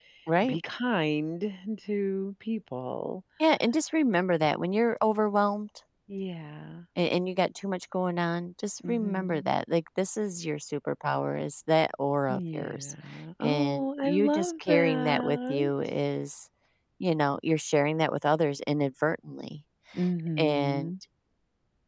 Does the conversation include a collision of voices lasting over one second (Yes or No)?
Yes